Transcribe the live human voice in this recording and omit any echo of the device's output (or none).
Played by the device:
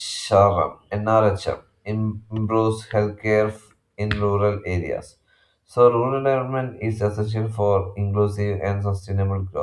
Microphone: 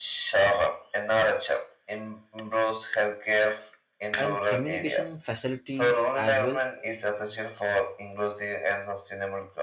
and communication facilities as well